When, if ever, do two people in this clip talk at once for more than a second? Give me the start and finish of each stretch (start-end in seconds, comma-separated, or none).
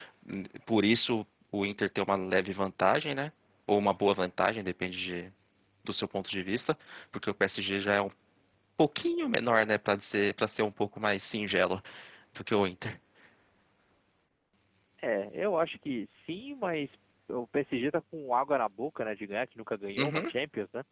none